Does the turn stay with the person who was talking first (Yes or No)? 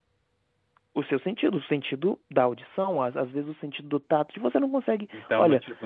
No